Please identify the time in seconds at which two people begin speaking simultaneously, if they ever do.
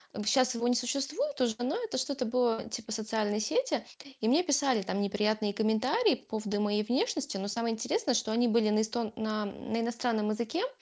none

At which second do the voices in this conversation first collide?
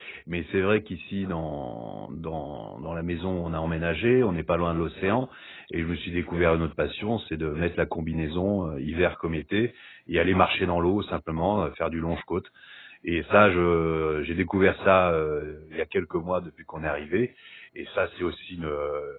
none

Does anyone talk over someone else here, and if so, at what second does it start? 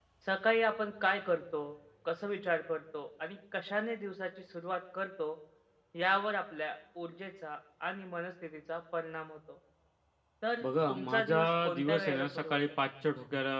10.6 s

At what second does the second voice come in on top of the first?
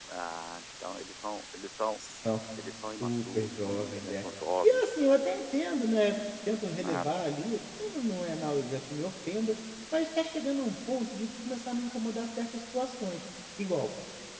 3.0 s

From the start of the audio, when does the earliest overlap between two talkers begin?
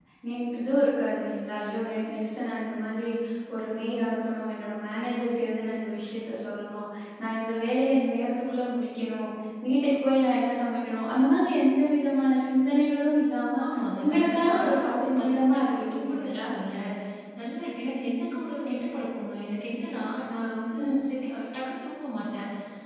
14.0 s

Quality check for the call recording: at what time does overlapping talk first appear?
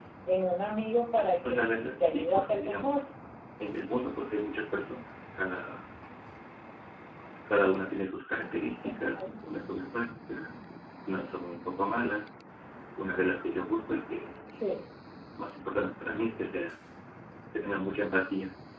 1.4 s

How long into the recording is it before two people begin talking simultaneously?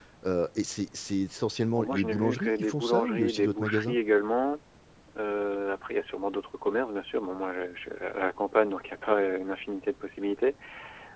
1.8 s

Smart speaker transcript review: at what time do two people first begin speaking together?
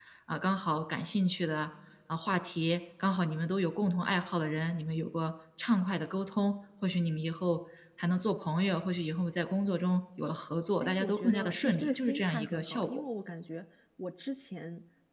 10.8 s

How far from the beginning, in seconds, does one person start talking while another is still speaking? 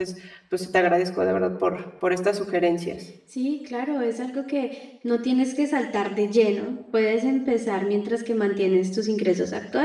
none

